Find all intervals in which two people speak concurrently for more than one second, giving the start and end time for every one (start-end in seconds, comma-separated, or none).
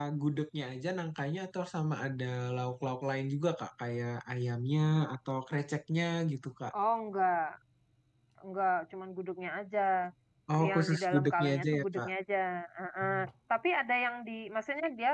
10.7-12.1